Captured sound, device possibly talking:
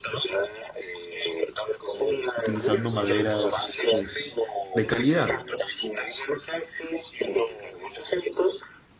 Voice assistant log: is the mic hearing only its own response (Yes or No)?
No